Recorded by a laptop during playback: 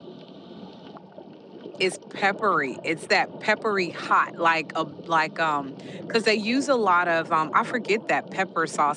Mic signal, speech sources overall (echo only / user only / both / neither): user only